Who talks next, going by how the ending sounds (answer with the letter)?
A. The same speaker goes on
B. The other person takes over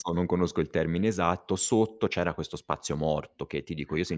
A